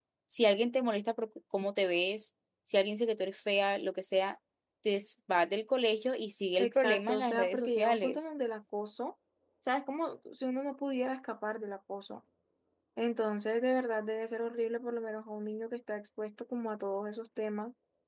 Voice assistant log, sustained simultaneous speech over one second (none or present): present